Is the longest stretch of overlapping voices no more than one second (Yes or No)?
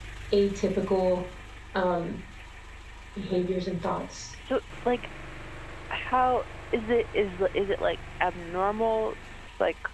Yes